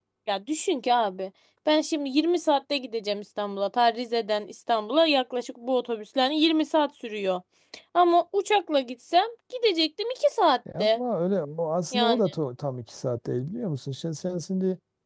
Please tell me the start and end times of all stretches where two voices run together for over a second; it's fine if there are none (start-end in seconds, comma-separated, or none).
none